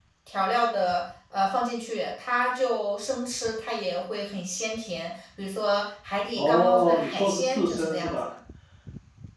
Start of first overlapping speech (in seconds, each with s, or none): 6.3 s